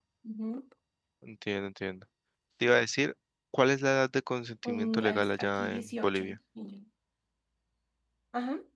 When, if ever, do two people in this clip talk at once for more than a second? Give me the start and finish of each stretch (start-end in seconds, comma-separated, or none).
4.6-6.4